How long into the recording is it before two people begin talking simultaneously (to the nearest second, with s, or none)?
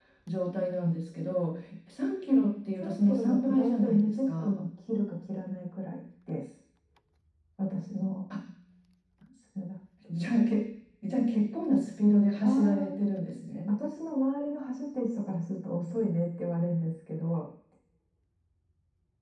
3 s